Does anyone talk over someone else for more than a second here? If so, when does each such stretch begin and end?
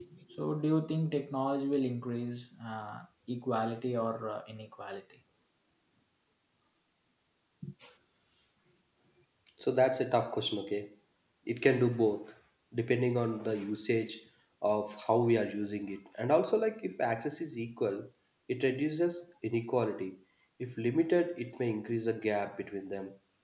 none

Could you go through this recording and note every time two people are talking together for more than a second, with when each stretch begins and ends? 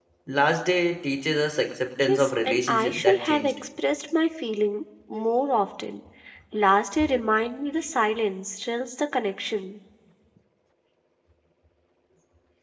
2.0-3.5

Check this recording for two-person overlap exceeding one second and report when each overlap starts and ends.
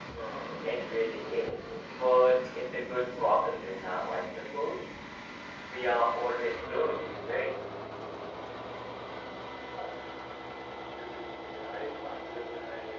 none

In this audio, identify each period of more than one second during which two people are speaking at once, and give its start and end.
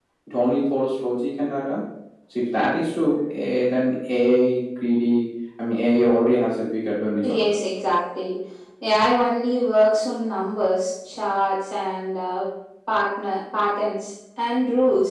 none

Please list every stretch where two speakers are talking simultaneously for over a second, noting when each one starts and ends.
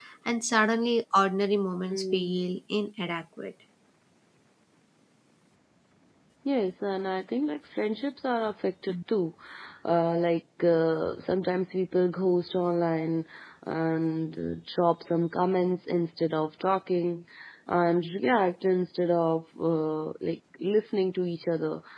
none

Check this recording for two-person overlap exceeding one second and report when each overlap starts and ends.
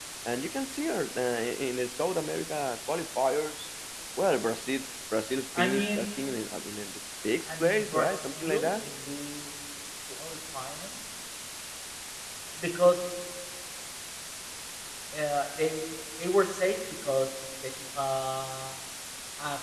7.4-8.7

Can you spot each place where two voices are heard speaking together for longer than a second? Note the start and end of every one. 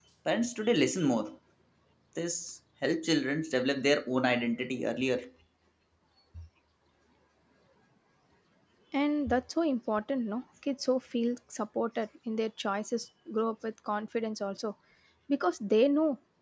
none

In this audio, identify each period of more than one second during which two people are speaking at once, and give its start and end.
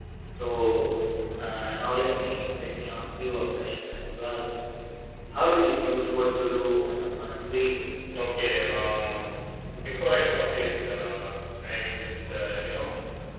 none

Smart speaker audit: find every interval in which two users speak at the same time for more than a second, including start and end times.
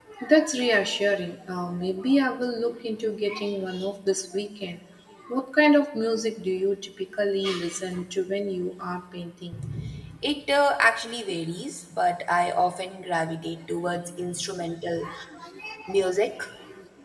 none

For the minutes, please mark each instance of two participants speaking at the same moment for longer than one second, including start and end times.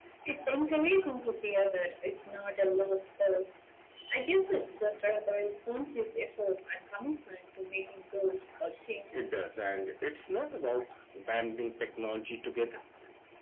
none

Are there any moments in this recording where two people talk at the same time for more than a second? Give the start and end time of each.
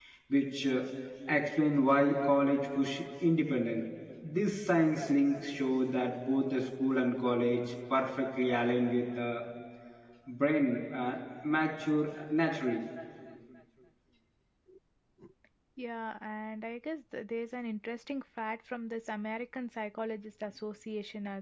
none

